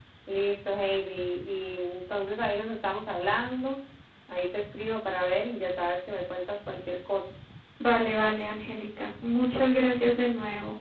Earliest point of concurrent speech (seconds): none

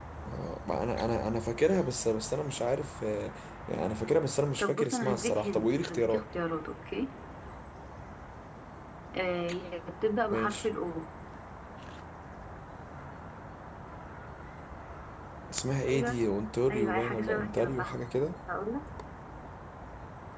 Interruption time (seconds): 5 s

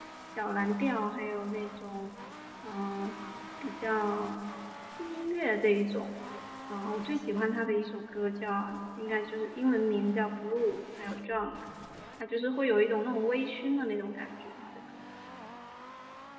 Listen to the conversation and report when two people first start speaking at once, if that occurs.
none

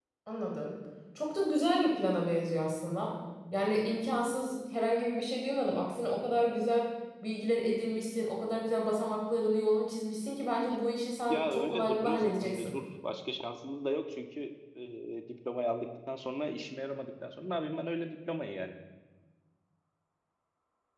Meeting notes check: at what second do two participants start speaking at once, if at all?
11 s

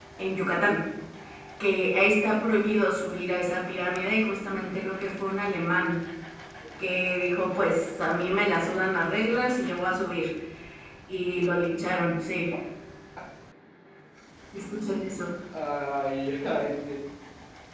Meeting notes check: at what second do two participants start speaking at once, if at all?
none

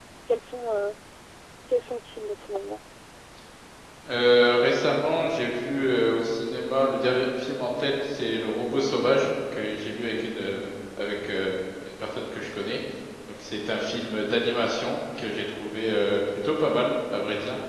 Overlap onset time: none

